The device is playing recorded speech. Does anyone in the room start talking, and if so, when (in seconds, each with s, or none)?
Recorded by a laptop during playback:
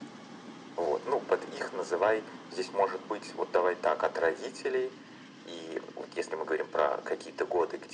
none